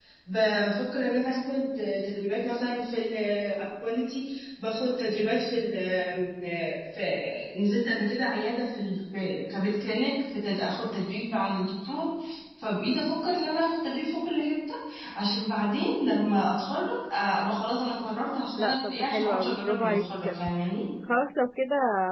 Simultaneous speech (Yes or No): Yes